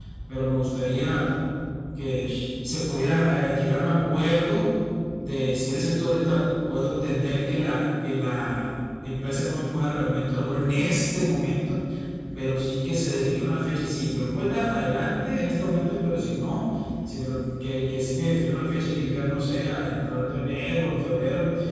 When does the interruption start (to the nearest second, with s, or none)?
none